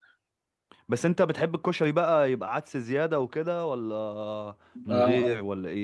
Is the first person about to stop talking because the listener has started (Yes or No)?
Yes